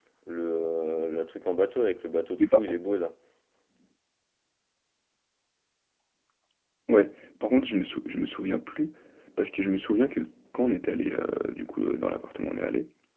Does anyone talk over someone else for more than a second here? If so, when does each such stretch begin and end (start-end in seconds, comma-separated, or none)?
none